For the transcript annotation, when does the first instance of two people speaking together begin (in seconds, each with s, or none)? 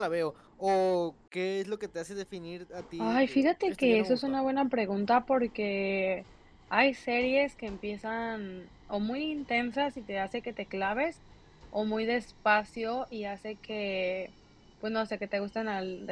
3.0 s